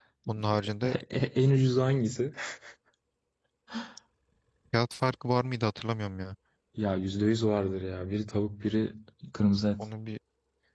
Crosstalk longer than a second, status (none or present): none